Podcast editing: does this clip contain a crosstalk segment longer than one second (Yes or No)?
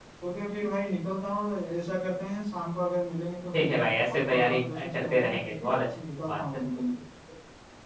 Yes